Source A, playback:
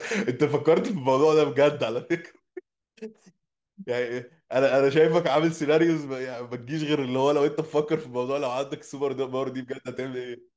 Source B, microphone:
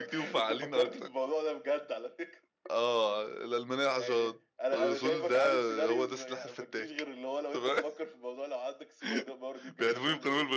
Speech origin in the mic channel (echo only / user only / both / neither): both